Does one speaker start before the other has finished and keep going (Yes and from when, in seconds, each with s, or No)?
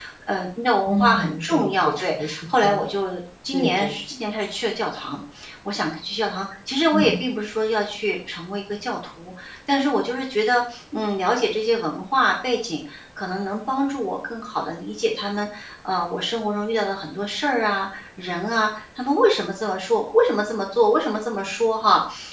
Yes, from 0.9 s